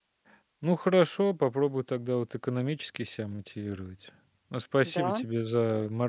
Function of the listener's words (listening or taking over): listening